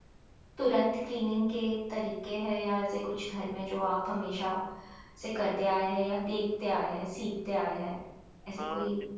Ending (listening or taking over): taking over